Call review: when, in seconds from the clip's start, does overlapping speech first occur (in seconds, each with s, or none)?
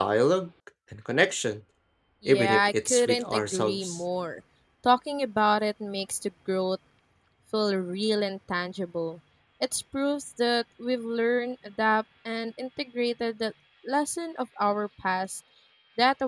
2.2 s